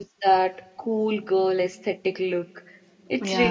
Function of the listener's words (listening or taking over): listening